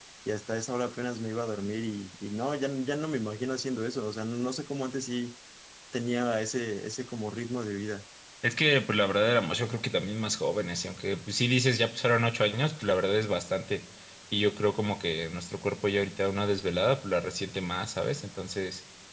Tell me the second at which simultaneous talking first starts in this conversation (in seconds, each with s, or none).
none